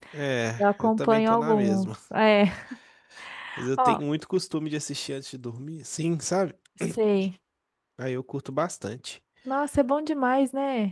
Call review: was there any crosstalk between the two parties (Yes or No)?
Yes